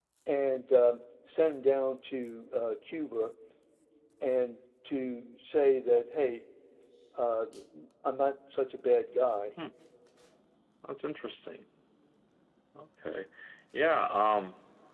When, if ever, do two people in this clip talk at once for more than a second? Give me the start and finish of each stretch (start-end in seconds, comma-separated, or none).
none